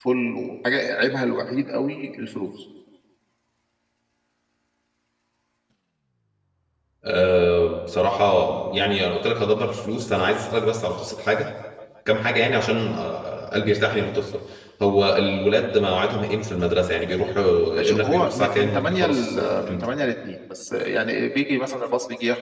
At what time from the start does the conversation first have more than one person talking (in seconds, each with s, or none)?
17.8 s